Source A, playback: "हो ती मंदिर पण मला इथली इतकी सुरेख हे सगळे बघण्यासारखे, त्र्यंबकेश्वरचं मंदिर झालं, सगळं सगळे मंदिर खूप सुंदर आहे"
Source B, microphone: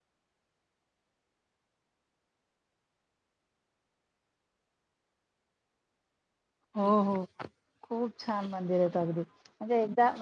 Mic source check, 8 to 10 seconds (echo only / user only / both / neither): user only